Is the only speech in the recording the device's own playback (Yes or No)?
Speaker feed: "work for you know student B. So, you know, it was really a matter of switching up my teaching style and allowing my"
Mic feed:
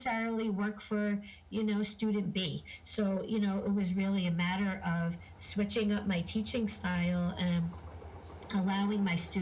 Yes